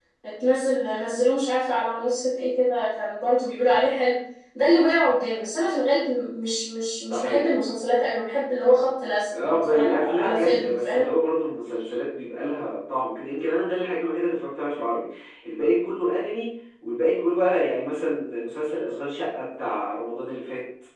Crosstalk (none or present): present